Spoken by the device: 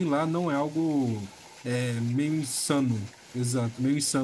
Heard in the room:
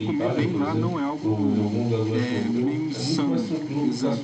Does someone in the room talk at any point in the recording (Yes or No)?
Yes